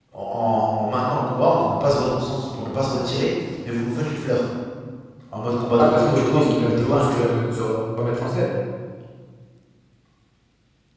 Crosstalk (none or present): present